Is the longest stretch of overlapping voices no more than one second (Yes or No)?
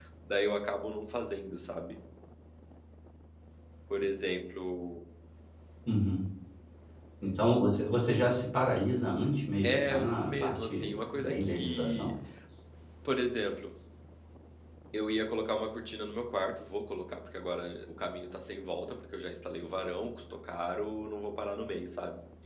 No